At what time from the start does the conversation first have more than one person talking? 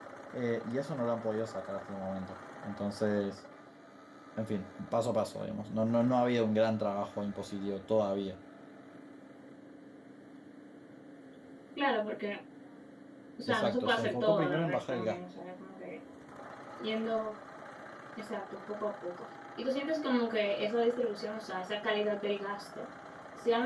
13.5 s

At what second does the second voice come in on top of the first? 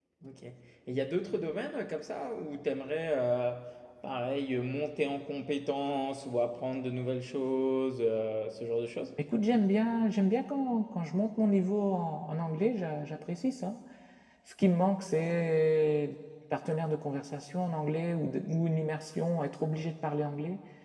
none

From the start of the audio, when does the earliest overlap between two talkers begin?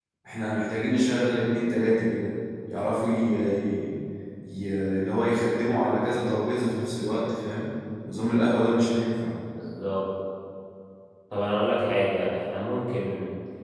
none

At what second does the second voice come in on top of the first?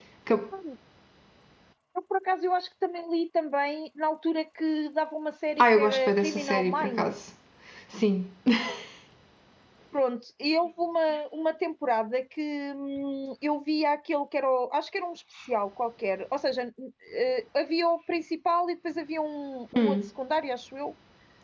5.6 s

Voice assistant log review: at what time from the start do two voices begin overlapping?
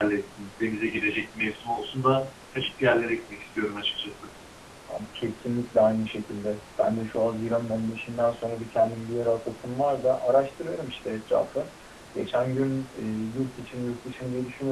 none

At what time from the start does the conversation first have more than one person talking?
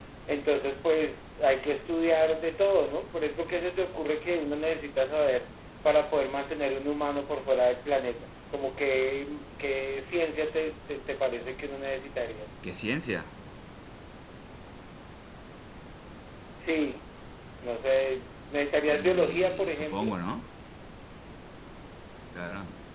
18.9 s

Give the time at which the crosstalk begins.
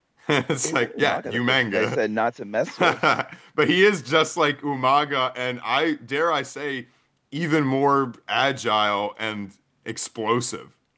0.6 s

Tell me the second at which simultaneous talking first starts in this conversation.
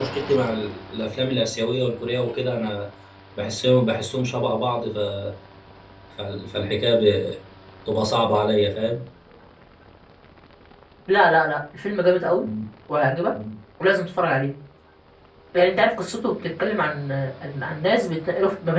none

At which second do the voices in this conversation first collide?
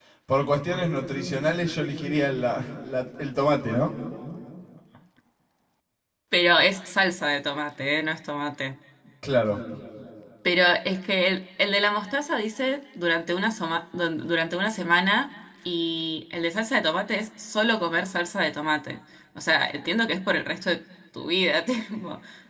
none

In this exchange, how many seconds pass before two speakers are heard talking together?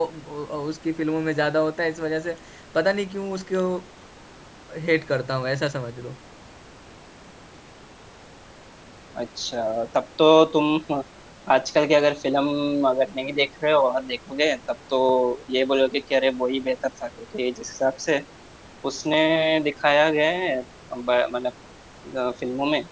none

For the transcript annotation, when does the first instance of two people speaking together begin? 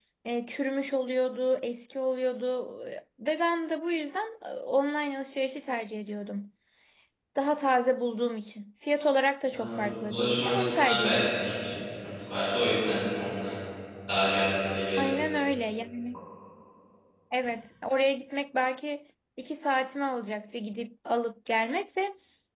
9.5 s

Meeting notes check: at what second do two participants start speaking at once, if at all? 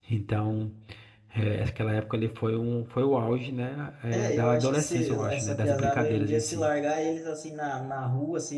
4.1 s

